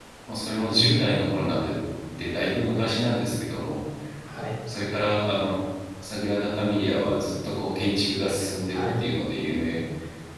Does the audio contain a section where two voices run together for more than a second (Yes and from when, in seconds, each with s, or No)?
No